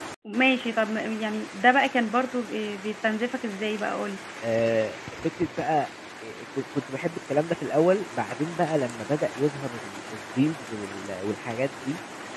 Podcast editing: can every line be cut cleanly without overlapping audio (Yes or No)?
Yes